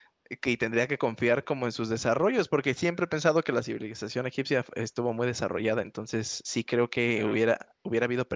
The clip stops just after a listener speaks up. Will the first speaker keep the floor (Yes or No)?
Yes